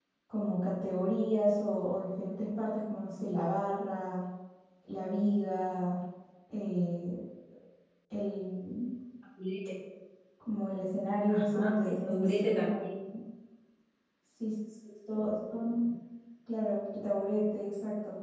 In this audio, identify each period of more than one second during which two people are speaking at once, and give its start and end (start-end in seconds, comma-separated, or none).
11.3-12.7